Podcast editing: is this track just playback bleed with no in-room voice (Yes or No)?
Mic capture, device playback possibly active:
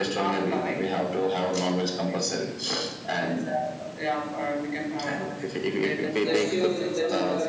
No